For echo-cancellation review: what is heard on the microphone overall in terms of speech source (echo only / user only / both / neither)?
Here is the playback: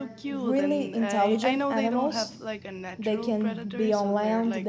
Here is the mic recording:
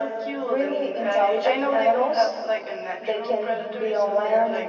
echo only